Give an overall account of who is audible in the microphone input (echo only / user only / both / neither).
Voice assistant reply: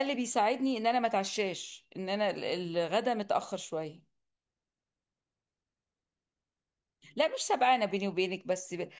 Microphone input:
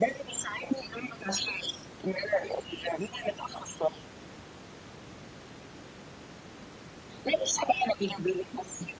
echo only